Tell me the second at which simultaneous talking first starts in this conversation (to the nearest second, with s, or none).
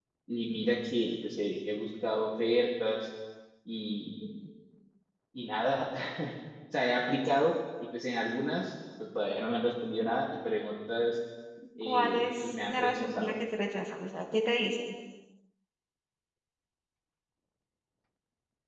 12 s